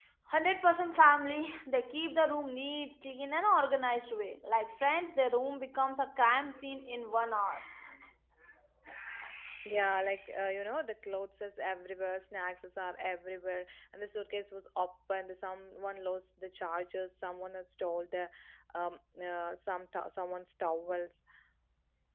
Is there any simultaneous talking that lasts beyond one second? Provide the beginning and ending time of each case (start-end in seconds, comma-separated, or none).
none